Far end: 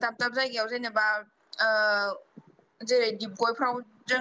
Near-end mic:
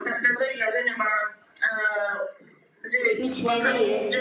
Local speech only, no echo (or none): मिथिनाय जायो।